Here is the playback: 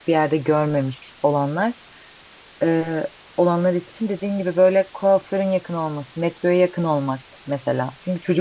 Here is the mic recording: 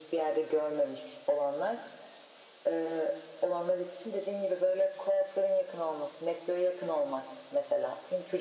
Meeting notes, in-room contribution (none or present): none